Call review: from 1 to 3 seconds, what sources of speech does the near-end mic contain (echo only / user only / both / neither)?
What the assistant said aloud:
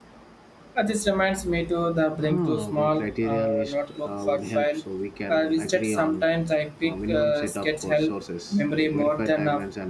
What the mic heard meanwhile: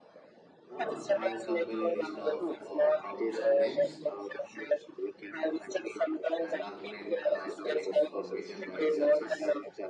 both